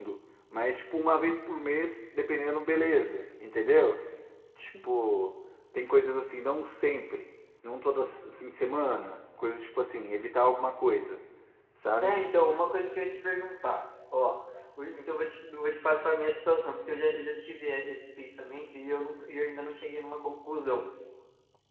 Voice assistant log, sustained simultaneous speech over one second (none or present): none